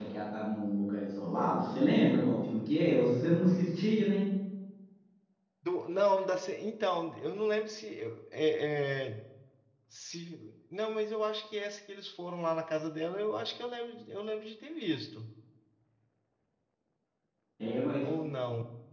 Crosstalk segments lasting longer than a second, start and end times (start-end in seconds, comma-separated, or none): none